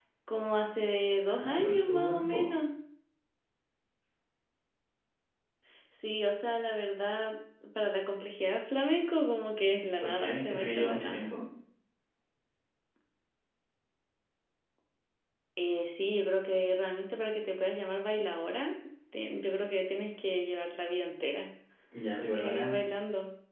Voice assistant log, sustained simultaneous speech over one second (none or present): present